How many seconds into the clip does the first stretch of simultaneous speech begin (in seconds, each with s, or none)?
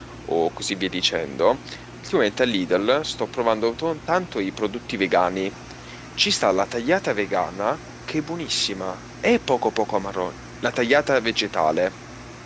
none